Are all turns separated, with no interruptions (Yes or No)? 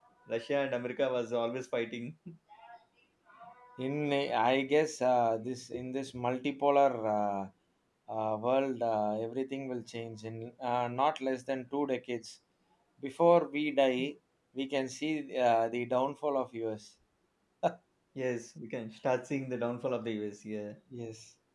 Yes